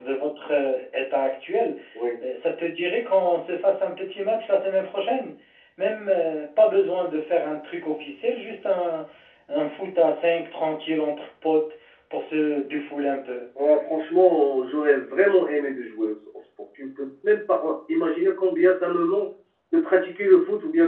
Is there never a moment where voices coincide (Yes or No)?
Yes